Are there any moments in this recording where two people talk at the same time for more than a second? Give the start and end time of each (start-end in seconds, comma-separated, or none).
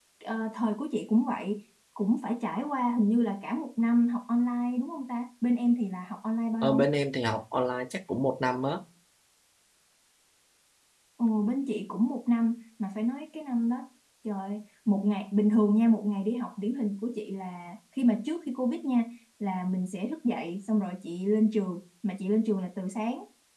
none